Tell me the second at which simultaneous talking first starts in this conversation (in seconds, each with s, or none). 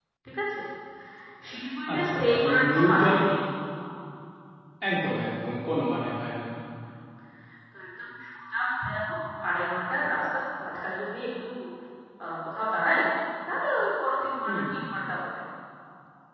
1.9 s